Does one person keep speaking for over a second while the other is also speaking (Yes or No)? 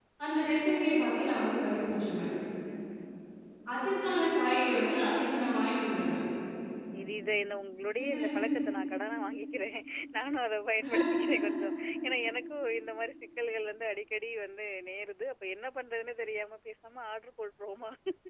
No